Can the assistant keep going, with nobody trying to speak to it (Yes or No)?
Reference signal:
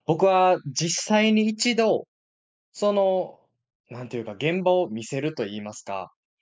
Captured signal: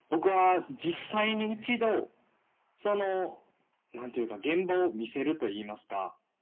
No